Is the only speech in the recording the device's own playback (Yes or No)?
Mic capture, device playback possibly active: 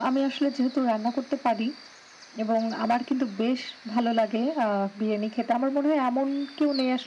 Yes